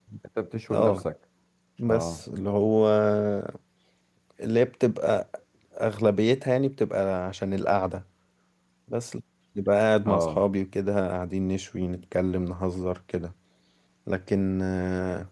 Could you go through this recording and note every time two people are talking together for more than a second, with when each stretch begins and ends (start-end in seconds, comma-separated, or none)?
none